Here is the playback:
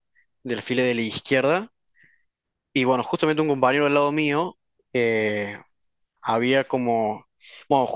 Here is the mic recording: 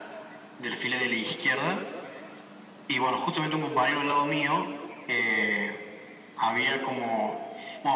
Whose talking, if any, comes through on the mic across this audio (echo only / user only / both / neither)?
echo only